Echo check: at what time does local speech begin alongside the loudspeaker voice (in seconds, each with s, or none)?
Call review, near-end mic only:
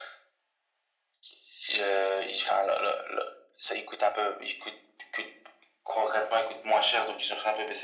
none